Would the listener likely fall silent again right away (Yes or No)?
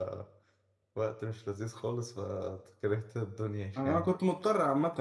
No